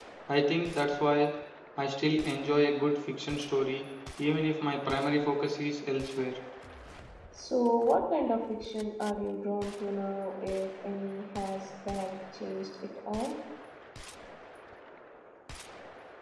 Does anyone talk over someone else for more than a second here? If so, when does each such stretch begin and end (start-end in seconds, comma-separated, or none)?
none